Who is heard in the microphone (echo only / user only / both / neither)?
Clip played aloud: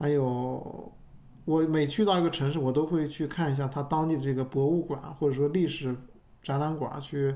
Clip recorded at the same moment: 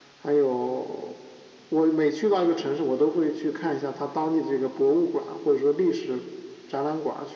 echo only